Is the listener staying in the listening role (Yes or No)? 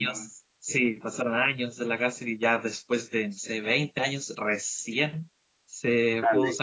Yes